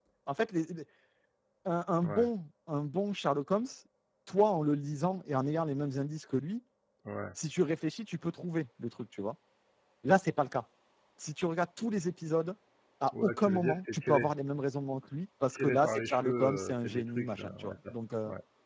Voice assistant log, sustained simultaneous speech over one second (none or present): present